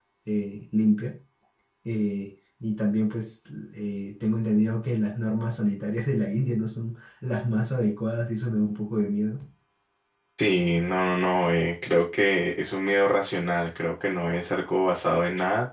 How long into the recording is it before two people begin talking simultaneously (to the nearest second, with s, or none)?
none